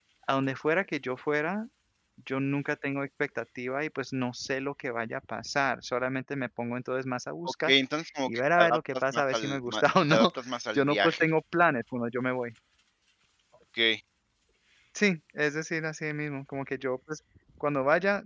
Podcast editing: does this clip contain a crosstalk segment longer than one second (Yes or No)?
Yes